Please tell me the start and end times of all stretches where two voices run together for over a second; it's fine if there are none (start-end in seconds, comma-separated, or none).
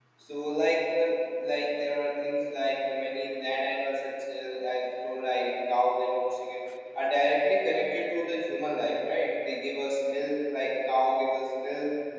none